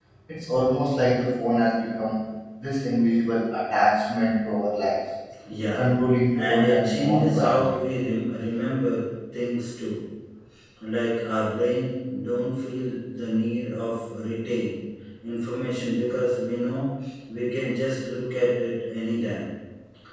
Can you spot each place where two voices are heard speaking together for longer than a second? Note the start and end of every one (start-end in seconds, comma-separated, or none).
6.3-7.8